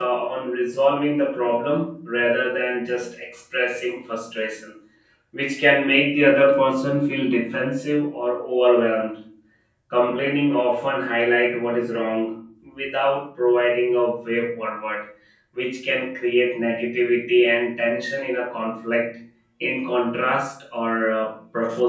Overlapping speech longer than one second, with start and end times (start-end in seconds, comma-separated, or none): none